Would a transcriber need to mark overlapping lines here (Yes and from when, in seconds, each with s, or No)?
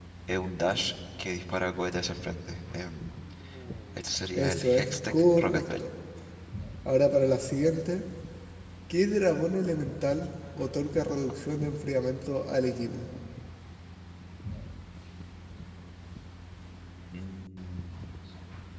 Yes, from 4.3 s